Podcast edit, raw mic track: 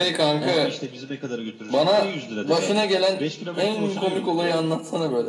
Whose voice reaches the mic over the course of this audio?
echo only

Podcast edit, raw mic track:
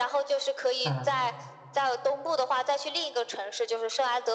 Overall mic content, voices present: both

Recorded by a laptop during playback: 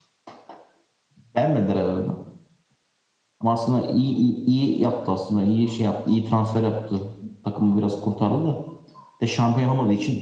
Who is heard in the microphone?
echo only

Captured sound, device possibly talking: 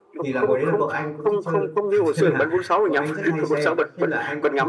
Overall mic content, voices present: both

